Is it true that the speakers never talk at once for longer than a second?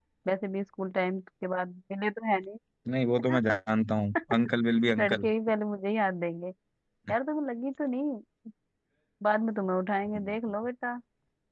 Yes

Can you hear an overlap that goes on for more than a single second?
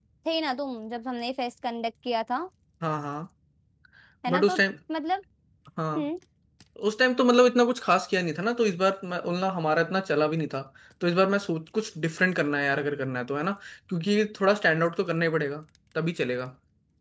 No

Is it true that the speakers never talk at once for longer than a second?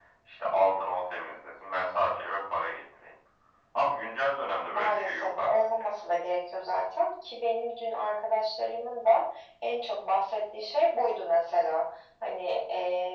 No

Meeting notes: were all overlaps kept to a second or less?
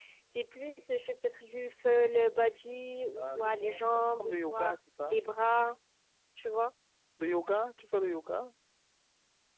No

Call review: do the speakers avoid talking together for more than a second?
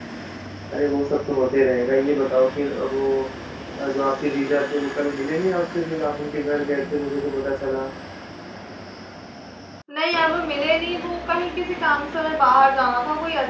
Yes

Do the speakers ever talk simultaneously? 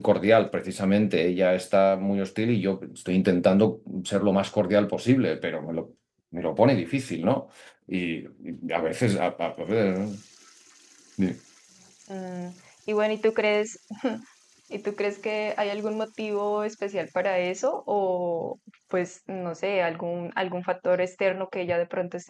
No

